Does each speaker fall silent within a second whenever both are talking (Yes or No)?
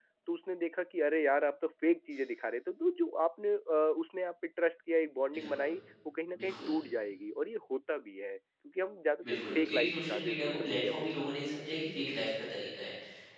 No